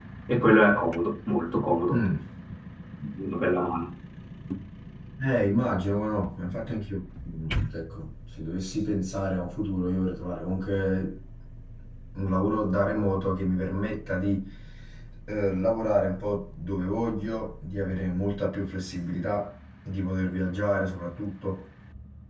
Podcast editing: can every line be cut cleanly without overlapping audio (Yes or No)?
Yes